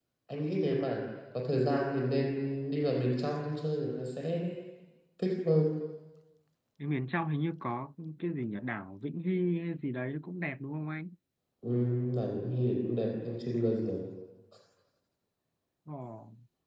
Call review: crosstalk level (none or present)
none